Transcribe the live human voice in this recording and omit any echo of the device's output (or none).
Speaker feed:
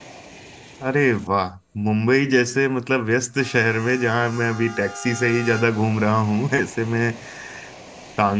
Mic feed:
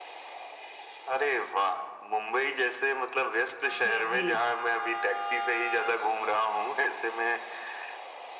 जी जी